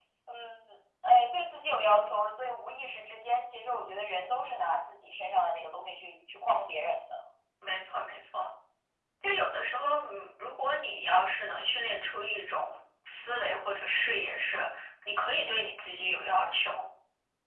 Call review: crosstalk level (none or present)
none